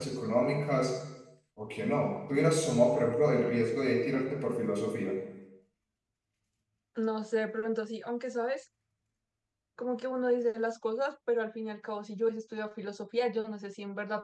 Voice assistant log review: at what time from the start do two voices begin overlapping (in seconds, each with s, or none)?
none